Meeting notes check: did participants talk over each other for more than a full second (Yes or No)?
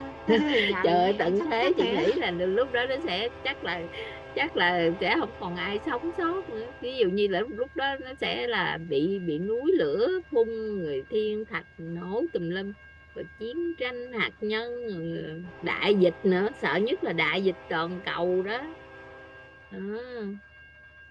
Yes